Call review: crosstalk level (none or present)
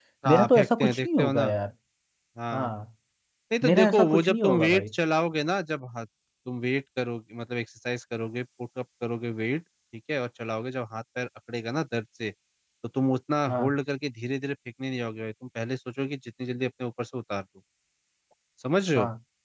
present